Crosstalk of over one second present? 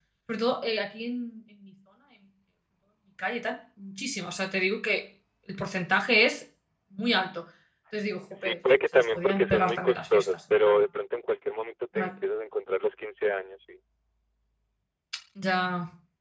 Yes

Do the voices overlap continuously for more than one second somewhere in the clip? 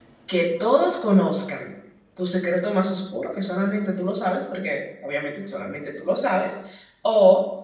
No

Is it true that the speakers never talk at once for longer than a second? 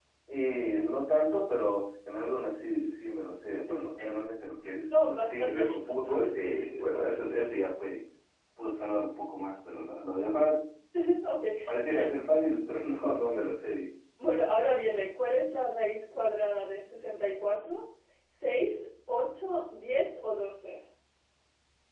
No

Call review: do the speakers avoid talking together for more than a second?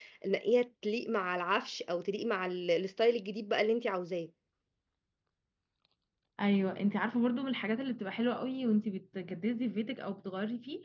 Yes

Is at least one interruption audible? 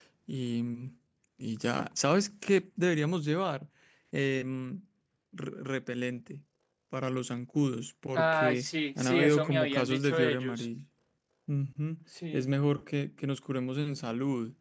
Yes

